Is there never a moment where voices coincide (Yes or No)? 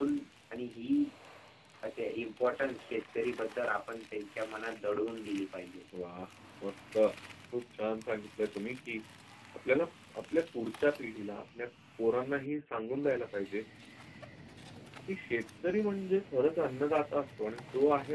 Yes